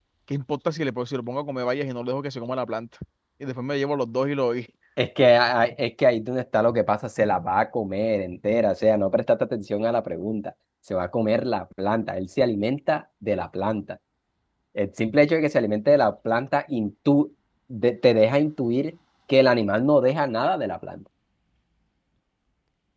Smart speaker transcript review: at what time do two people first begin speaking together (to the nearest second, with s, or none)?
none